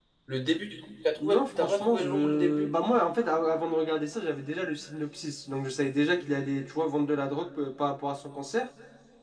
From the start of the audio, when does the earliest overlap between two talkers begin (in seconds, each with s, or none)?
1.2 s